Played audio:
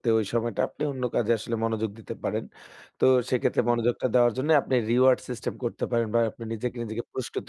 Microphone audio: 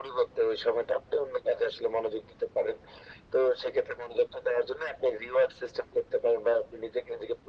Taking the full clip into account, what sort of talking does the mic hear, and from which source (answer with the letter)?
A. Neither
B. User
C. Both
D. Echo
D